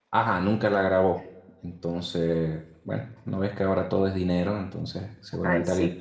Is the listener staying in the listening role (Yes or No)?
Yes